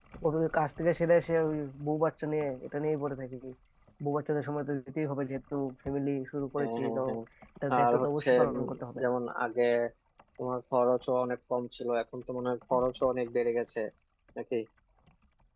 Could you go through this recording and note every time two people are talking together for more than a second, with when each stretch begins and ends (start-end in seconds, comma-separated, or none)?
7.8-9.0